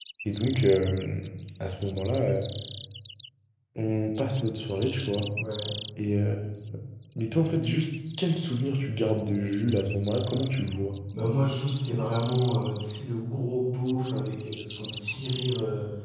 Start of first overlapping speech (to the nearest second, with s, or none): none